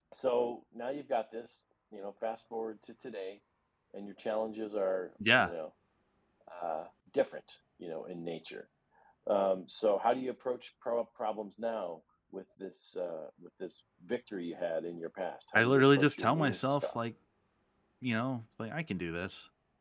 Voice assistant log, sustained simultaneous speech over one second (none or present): present